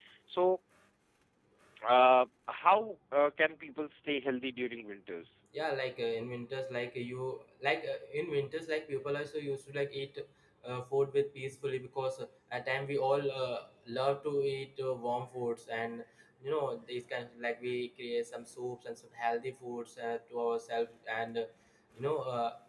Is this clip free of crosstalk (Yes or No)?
Yes